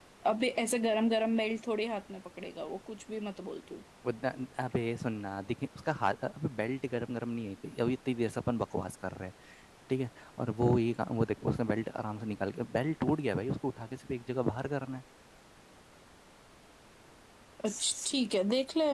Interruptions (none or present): none